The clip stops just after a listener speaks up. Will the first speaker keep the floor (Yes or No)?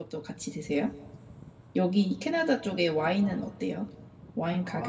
No